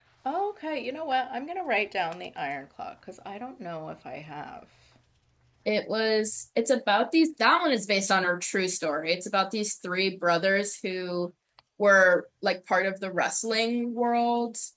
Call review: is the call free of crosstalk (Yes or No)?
Yes